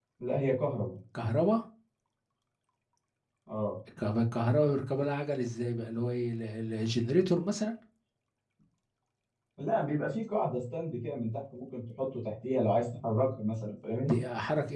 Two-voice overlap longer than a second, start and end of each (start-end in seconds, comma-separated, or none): none